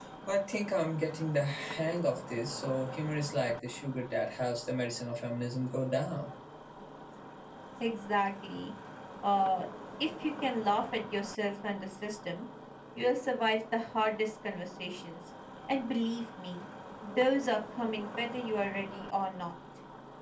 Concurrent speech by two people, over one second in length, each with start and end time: none

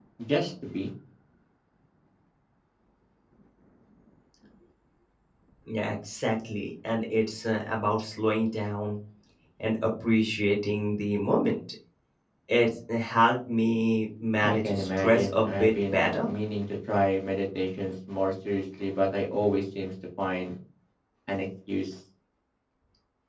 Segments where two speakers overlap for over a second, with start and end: 14.4-16.3

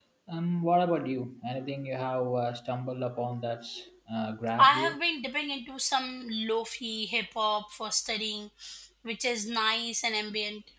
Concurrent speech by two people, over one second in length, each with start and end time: none

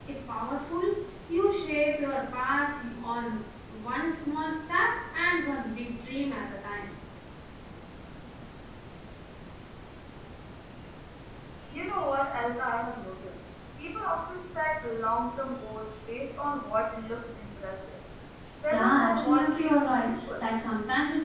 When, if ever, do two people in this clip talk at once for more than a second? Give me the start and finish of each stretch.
18.7-20.5

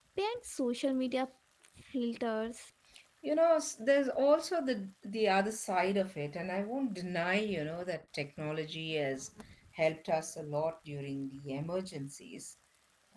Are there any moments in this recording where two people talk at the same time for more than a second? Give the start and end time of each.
none

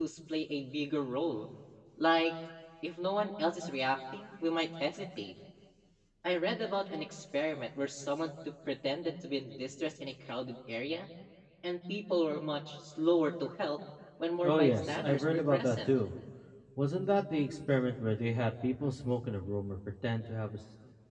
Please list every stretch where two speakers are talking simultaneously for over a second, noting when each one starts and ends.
14.4-15.9

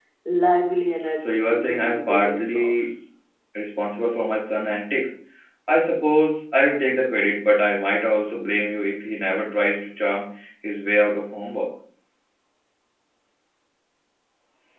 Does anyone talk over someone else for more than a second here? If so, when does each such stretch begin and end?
1.2-2.9

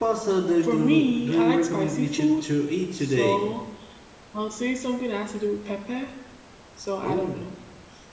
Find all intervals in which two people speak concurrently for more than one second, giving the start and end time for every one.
0.6-2.4

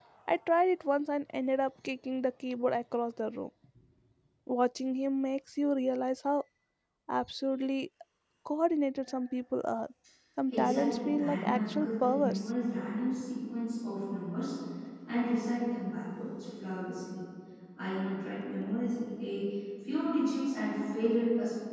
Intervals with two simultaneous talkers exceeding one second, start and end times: 10.5-12.4

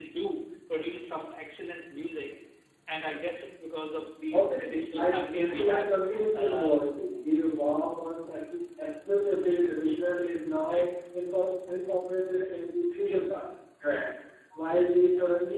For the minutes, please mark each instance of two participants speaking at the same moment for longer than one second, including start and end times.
4.3-5.9

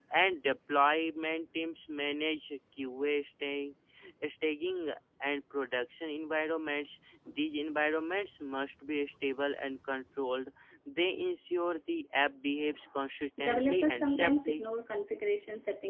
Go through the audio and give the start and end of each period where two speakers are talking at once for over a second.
13.4-14.6

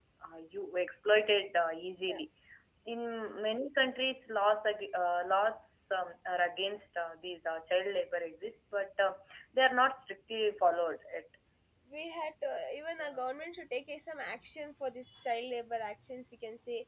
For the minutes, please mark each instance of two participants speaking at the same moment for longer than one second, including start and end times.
none

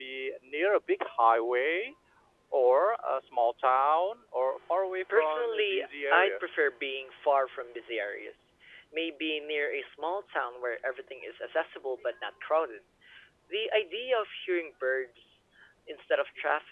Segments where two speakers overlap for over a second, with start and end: 5.1-6.4

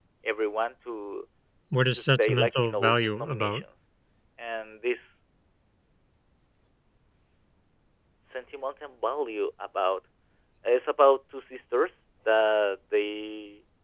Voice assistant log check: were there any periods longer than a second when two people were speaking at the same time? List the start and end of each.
1.9-3.6

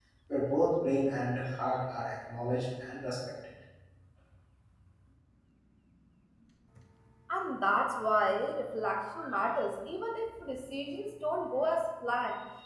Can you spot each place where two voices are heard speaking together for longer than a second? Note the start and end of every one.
none

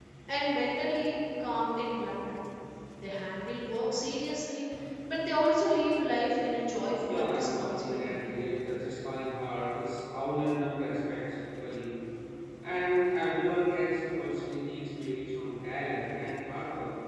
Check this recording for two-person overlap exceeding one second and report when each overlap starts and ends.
7.0-8.2

